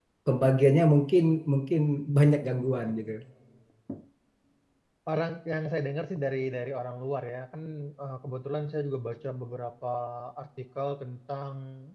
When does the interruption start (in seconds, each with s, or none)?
none